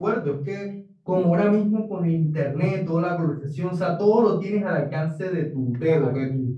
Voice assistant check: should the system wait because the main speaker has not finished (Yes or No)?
Yes